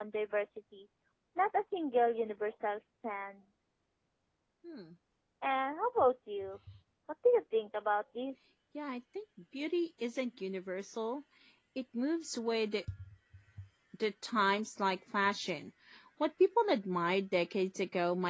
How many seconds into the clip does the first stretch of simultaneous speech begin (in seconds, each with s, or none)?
none